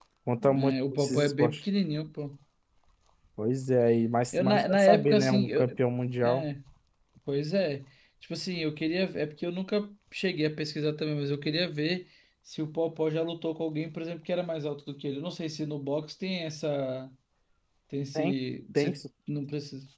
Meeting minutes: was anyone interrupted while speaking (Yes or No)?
Yes